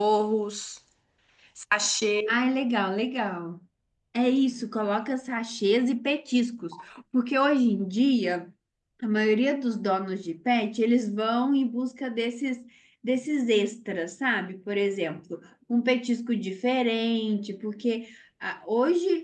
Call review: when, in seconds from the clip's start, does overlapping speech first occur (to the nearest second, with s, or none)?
none